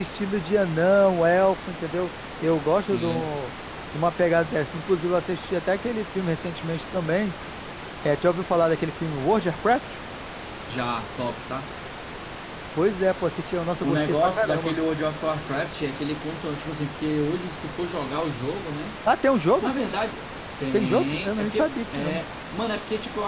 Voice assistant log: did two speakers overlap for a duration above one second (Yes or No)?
Yes